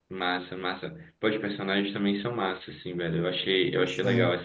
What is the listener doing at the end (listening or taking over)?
listening